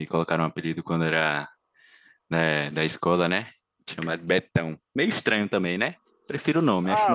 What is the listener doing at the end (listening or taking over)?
taking over